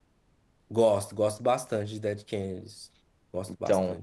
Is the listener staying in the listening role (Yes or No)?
No